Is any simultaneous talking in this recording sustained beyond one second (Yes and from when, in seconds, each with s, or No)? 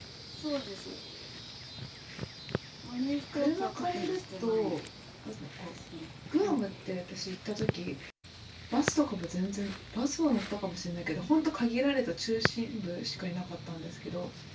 Yes, from 3.3 s